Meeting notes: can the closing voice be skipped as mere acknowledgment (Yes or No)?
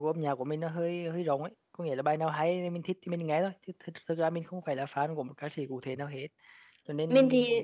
Yes